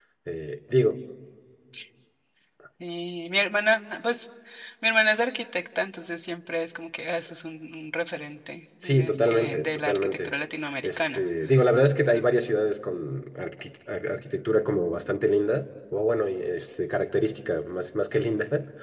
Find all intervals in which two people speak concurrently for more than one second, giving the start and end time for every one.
8.8-10.3

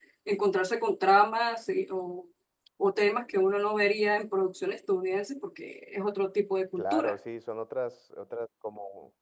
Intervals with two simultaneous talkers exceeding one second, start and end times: none

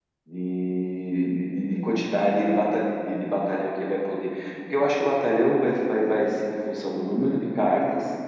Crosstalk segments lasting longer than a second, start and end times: none

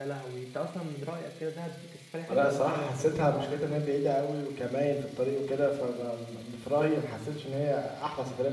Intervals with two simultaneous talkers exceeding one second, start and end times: 2.3-3.5

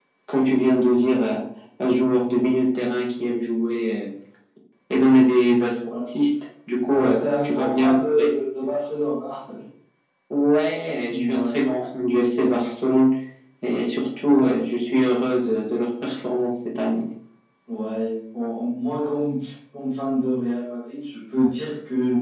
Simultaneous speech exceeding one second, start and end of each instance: 6.9-8.3

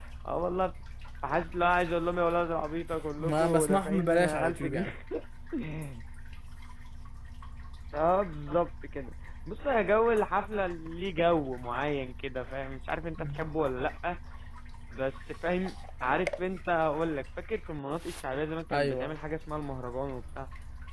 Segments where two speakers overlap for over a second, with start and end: 3.2-4.9

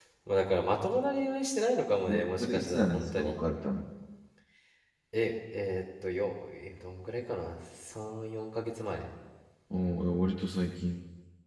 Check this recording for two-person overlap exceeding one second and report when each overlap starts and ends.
2.1-3.4

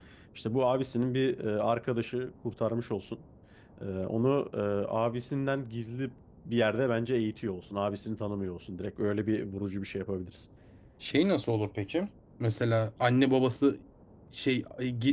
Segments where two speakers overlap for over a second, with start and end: none

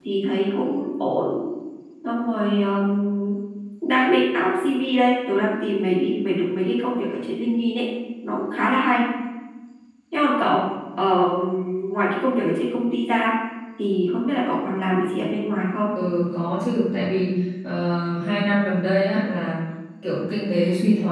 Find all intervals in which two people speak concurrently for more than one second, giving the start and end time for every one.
none

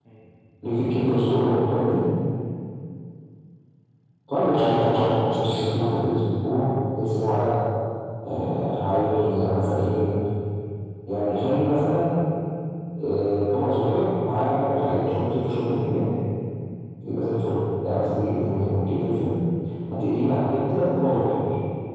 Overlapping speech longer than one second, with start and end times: 4.5-6.0

